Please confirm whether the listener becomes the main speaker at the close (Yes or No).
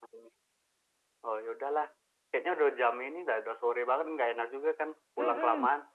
Yes